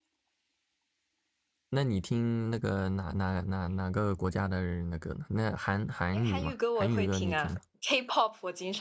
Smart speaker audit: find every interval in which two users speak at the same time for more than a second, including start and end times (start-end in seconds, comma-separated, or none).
6.1-7.6